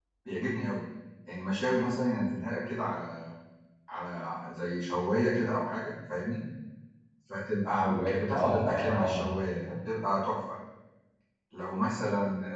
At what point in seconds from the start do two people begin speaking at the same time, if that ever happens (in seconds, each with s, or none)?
7.8 s